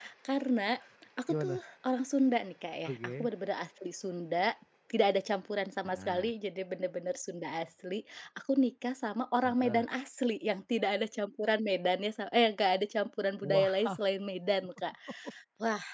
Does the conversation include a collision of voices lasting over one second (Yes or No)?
No